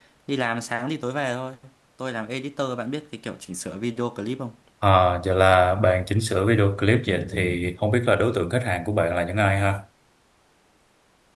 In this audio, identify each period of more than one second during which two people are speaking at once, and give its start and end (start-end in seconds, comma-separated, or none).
none